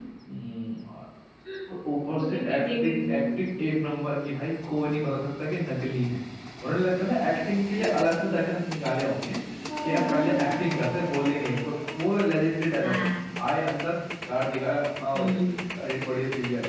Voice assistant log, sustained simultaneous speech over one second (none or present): present